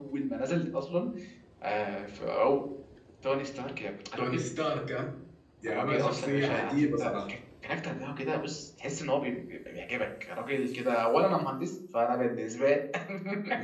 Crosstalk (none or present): present